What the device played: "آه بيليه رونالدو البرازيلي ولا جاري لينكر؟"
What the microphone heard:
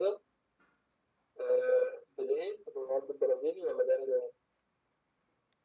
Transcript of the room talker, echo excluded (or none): none